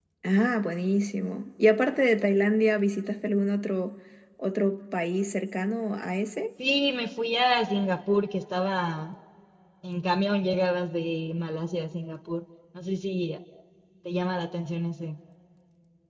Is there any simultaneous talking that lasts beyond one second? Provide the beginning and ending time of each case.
none

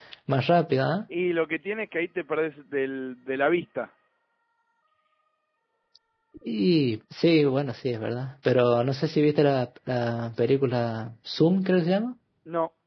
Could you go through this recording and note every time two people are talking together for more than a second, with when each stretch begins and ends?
none

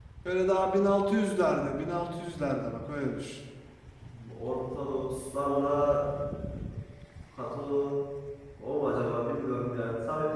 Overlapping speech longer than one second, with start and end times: none

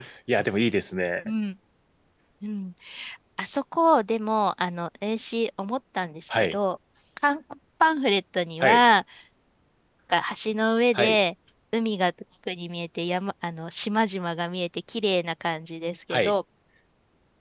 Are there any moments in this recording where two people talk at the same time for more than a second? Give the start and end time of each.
none

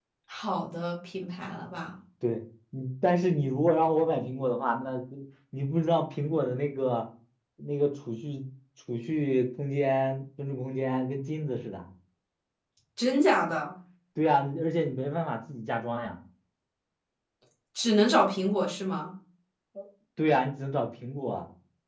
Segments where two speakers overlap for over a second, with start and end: none

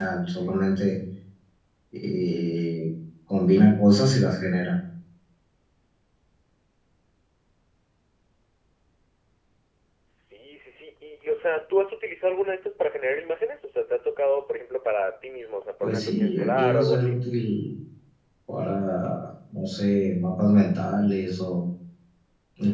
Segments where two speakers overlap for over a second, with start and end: 15.8-17.2

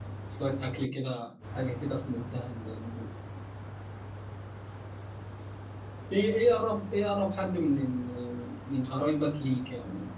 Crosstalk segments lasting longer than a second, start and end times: none

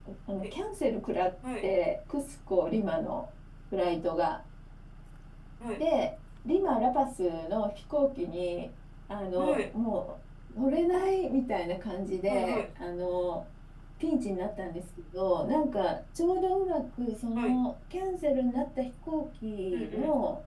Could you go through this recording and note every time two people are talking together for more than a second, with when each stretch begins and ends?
none

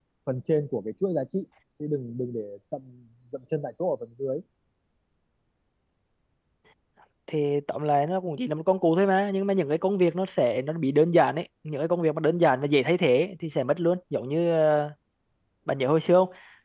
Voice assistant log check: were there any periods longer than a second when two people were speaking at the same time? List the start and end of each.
none

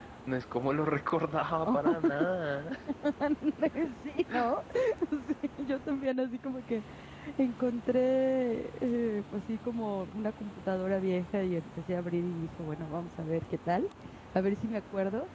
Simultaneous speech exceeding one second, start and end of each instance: none

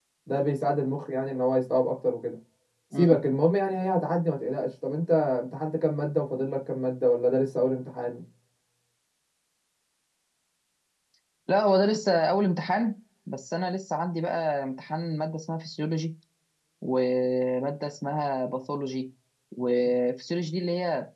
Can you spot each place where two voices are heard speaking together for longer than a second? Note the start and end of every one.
none

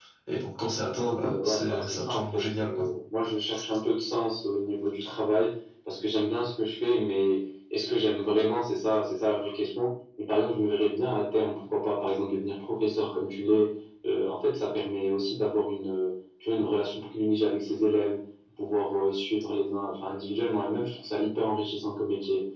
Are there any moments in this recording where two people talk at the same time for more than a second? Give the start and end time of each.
1.1-2.7

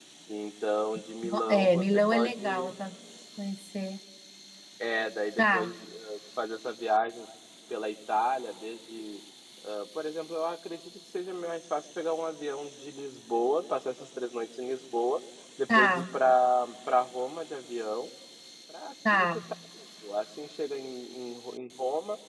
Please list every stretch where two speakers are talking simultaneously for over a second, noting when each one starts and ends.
1.2-2.7

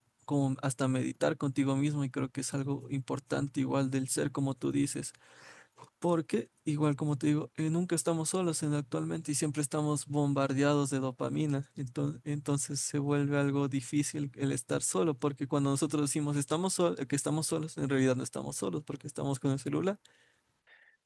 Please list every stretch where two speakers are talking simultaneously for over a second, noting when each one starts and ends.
none

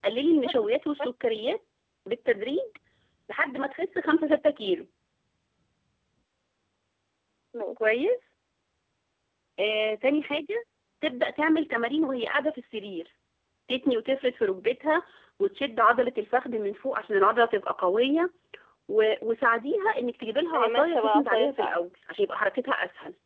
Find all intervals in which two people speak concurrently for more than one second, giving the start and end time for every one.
20.5-21.8

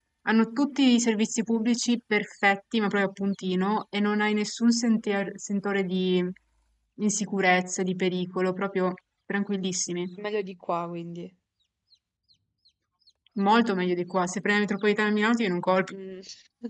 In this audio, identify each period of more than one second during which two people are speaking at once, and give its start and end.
none

